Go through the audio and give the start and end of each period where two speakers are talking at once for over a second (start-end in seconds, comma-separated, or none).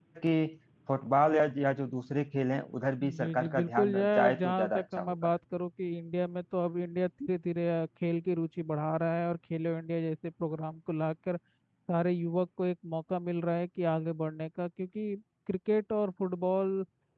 3.0-5.1